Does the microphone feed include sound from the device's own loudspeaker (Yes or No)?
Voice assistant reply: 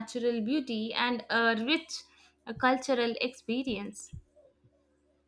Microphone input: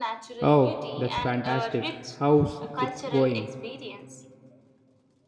Yes